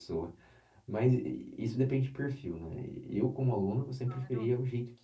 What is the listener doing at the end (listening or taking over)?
listening